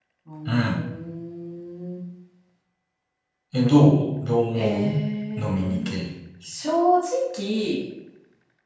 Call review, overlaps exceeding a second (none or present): none